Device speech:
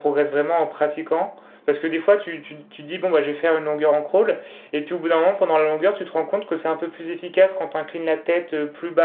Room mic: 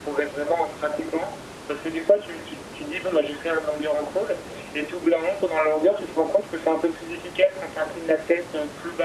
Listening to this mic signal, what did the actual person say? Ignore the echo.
none

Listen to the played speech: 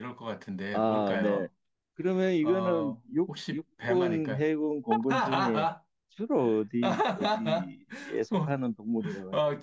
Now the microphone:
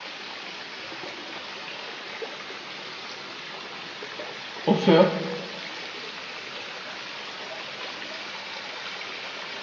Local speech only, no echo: 없어요?

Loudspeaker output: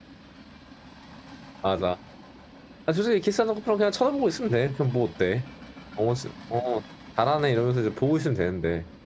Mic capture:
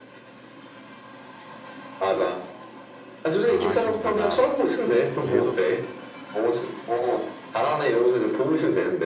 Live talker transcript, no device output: 아, 아쉬운 거다. 어, 계속,

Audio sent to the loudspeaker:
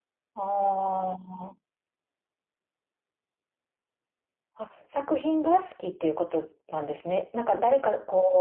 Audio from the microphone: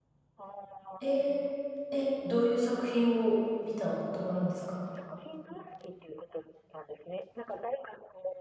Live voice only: えー、え、どういう作品を見たことがあるんですか

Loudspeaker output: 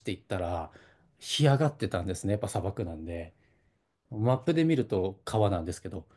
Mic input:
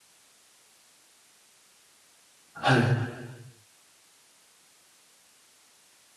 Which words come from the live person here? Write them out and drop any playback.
はい。

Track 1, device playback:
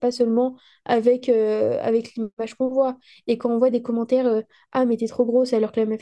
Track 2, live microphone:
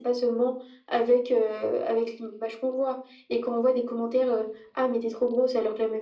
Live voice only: none

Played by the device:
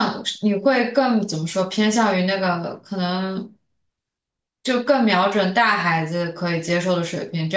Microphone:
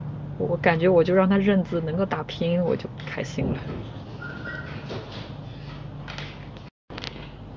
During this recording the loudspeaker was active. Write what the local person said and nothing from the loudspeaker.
我感觉我就让他认字，能够打拼音我就开心了。

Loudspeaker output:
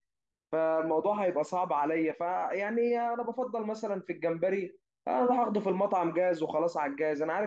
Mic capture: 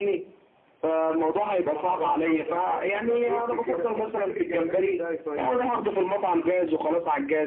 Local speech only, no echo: مكرونه وجمبري طب ما تقول لي كده طب بتعمل الجمبري ازاي طيب

